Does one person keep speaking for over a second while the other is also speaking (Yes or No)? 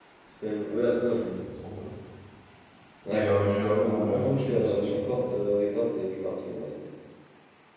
Yes